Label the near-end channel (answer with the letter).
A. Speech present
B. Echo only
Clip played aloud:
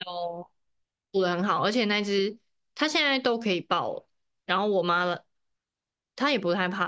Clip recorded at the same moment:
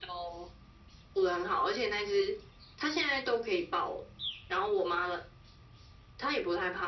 B